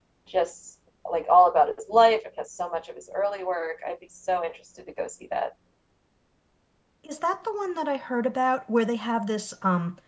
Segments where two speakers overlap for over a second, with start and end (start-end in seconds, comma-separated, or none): none